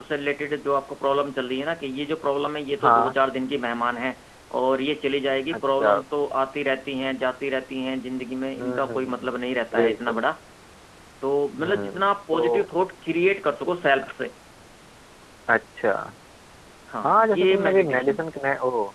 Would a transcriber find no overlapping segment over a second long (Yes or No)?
No